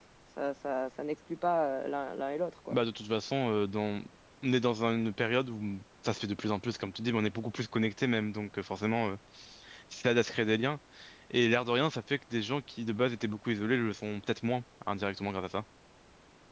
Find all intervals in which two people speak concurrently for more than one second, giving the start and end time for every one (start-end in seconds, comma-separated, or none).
none